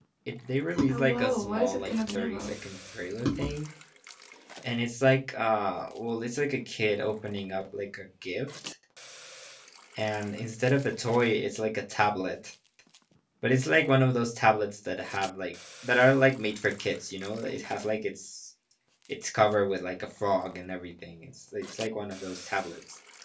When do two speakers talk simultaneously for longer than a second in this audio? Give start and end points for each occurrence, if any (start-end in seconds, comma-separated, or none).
0.9-2.5